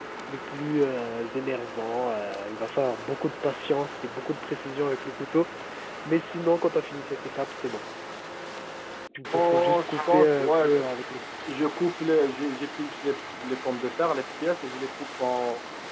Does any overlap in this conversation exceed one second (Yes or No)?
Yes